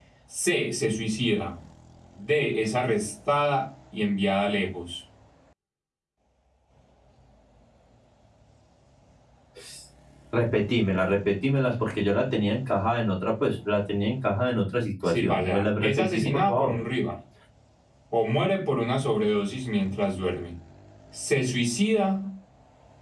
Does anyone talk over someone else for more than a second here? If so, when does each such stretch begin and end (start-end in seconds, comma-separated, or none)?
15.1-16.7